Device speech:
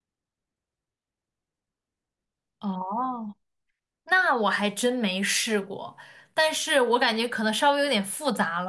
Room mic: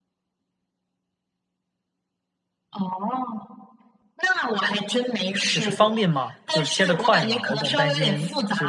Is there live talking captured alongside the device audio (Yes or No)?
Yes